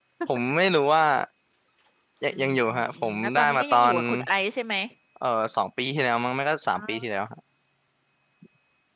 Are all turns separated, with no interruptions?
No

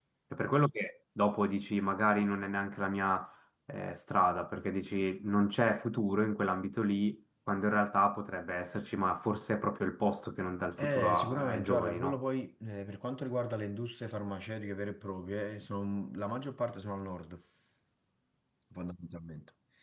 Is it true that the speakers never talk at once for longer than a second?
No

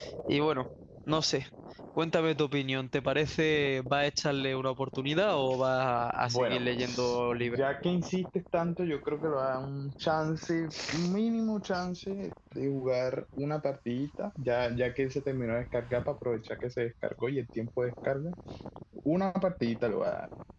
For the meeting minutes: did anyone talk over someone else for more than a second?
Yes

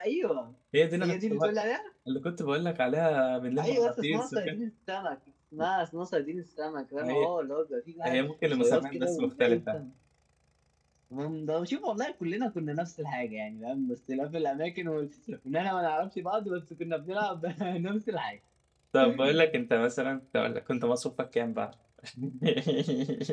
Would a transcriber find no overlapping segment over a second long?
No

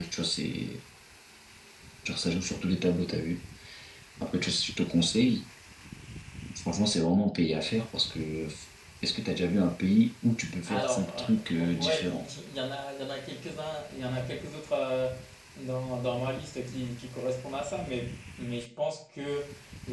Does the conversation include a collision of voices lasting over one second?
Yes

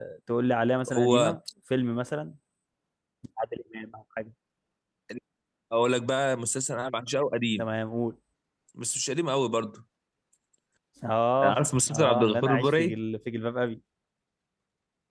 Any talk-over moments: Yes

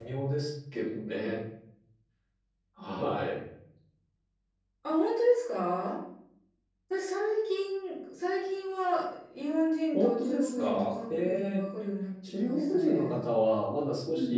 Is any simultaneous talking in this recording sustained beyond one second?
Yes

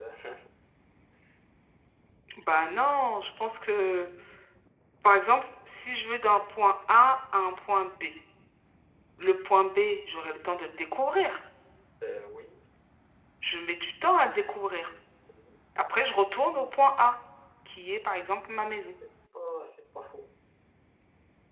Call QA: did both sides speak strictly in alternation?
Yes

